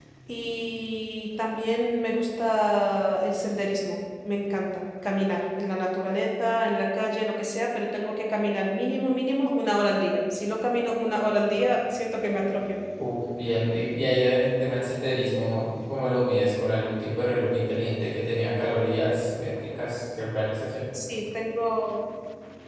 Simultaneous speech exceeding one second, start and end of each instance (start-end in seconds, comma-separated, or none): none